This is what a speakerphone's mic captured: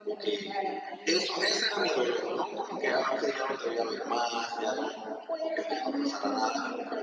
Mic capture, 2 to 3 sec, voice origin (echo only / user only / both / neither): echo only